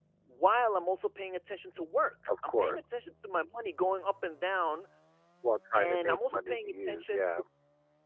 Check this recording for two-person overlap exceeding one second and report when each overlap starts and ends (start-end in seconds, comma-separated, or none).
5.7-7.2